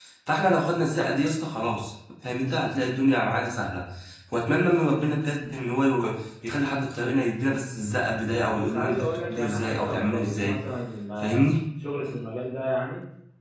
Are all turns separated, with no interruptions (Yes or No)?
No